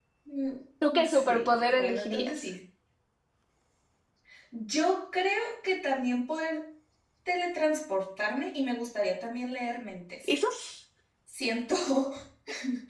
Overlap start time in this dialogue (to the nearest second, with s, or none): 1 s